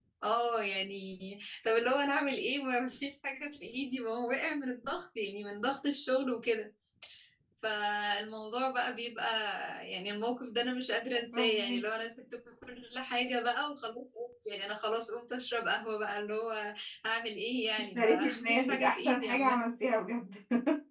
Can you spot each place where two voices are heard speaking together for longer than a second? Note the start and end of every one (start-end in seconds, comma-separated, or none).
17.8-19.6